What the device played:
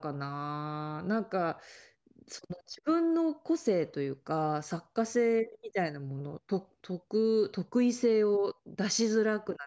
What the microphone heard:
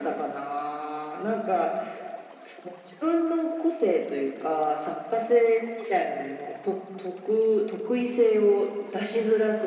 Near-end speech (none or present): none